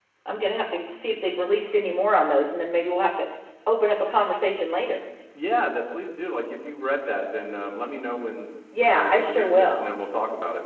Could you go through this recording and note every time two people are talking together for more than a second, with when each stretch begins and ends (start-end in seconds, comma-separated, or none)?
8.7-10.0